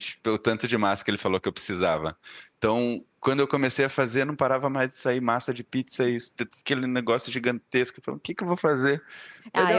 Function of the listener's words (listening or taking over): taking over